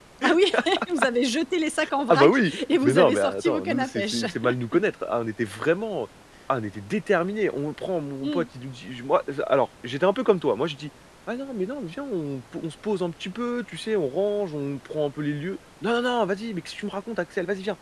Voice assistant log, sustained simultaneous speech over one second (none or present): present